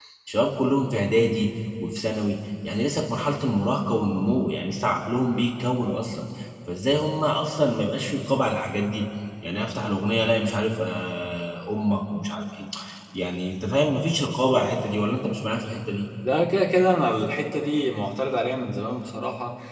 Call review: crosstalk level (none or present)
none